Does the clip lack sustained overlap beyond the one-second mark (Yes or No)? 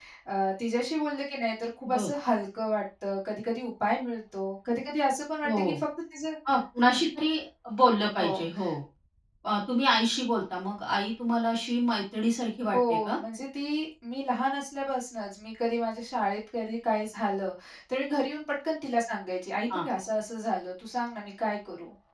Yes